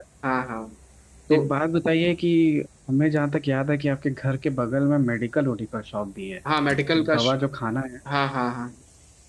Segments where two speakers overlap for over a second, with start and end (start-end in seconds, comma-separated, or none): none